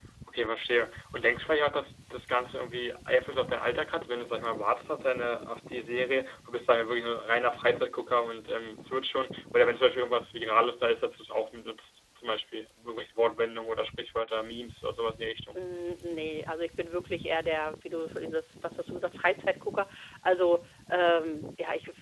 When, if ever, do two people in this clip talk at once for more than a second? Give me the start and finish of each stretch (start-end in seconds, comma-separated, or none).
none